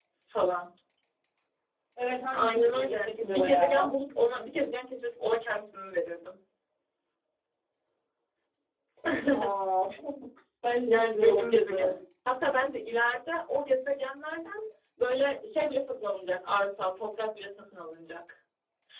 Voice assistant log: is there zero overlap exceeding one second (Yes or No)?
No